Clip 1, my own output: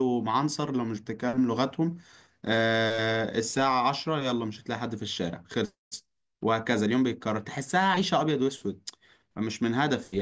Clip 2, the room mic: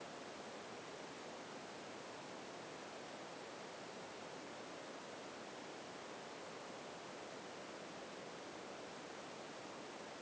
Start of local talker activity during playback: none

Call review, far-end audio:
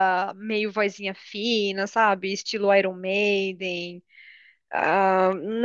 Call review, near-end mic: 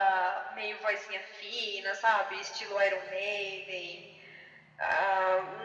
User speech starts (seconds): none

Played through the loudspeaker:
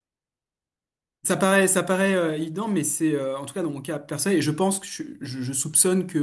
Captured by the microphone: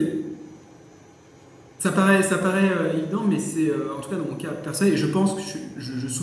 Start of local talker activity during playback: none

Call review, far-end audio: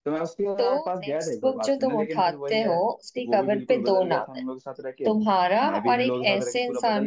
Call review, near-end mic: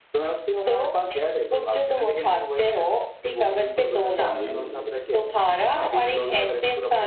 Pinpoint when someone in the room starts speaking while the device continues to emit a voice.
4.2 s

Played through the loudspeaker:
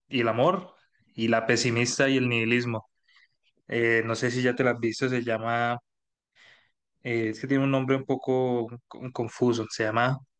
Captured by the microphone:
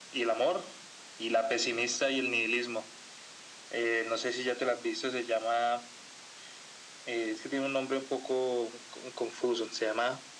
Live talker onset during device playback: none

